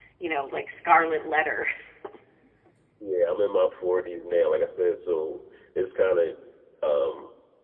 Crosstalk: none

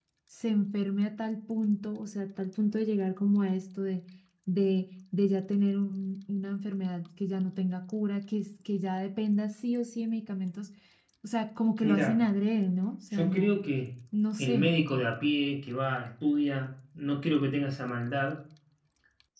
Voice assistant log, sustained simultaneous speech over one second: none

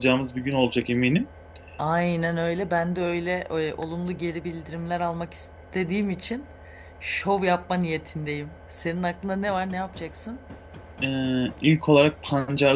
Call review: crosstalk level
none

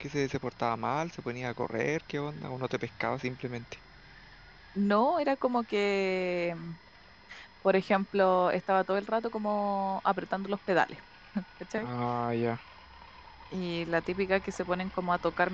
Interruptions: none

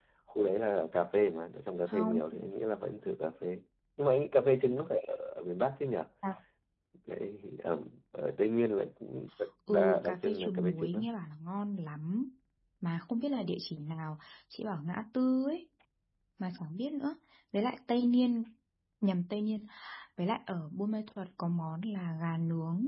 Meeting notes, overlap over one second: present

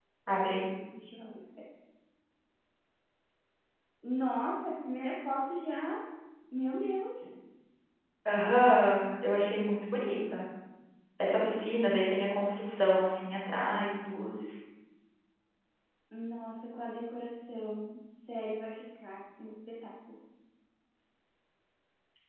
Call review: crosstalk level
none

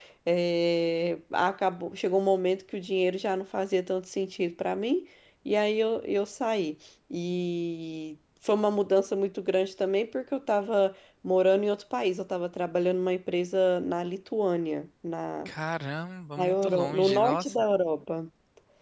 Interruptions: present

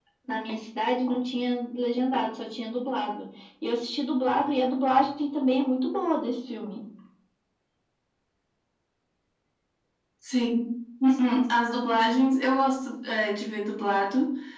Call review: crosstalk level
none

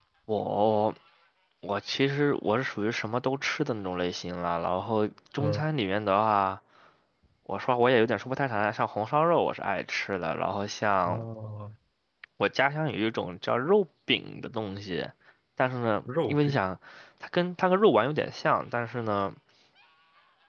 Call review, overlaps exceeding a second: none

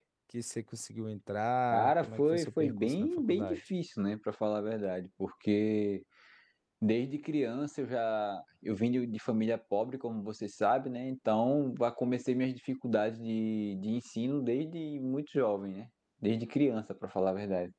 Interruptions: present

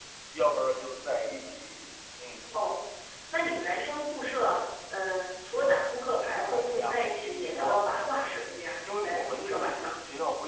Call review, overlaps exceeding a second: present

